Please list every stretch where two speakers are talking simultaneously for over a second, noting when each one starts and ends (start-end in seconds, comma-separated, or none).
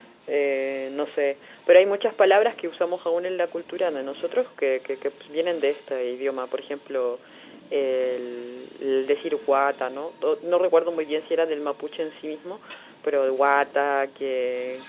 none